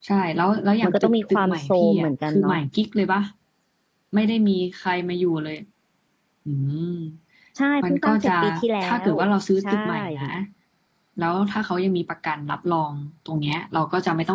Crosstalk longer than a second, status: present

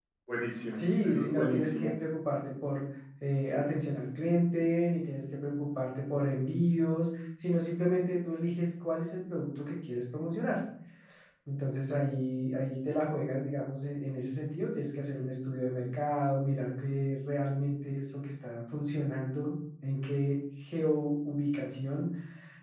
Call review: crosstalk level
present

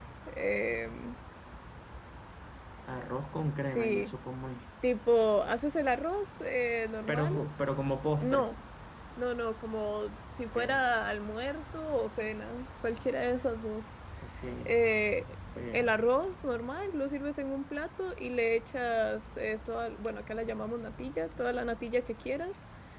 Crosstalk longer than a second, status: none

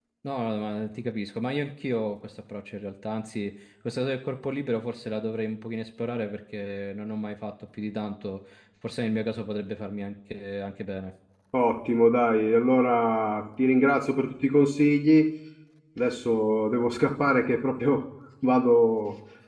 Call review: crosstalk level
none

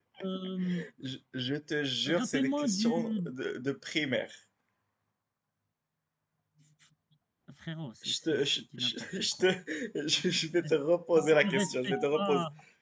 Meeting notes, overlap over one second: present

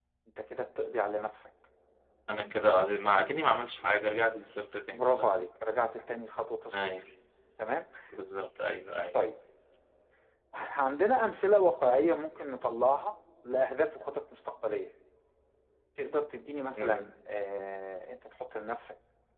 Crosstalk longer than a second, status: none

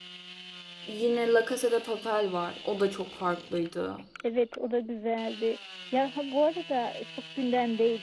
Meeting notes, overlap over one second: none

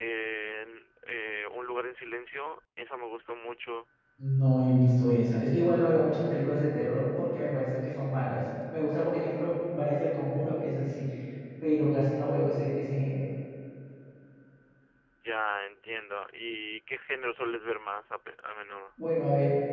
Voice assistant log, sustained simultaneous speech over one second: none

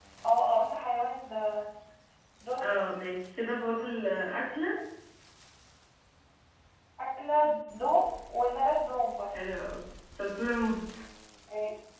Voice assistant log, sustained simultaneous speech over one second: none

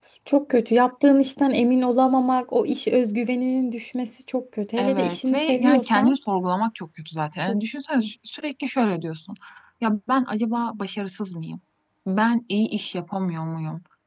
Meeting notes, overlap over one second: present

